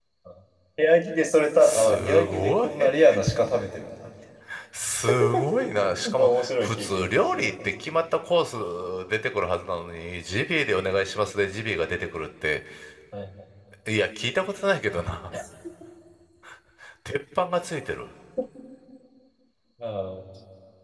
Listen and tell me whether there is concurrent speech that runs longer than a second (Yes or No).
Yes